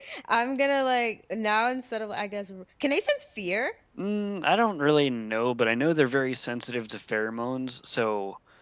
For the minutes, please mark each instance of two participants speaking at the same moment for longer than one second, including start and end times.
none

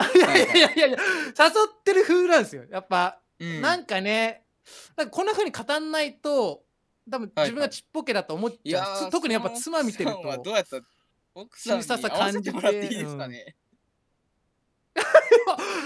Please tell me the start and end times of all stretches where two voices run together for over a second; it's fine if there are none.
8.7-10.4, 11.6-13.3

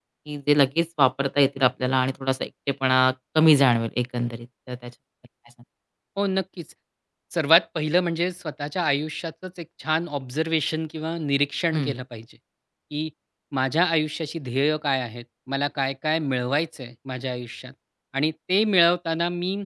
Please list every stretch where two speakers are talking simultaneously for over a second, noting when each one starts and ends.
none

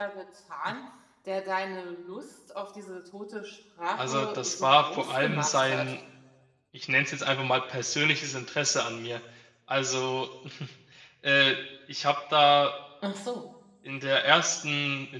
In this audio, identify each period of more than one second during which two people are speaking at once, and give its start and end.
4.0-5.9

